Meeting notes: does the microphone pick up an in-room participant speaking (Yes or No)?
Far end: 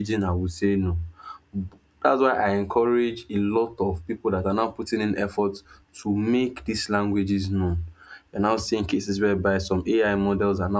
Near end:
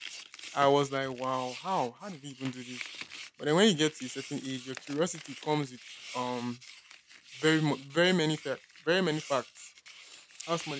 Yes